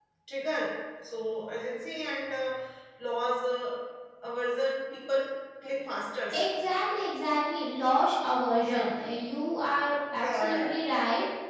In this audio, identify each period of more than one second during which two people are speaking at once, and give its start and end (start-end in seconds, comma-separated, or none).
none